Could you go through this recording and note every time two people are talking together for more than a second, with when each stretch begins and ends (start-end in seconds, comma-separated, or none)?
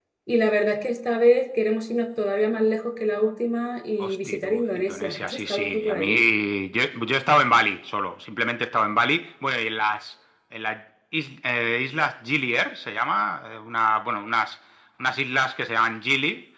4.0-6.2